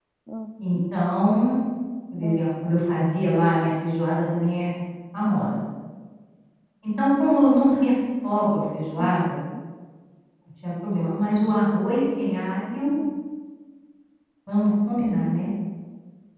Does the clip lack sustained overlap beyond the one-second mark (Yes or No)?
Yes